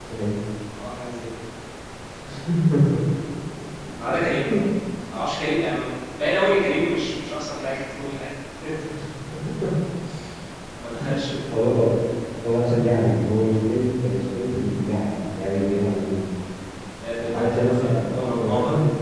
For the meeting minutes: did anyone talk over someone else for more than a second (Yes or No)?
Yes